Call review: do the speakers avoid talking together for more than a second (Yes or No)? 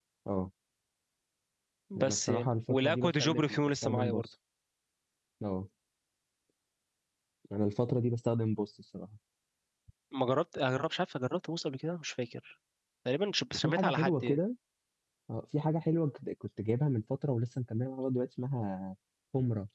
No